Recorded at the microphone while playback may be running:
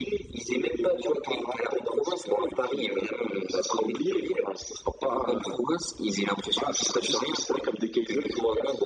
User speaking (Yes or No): No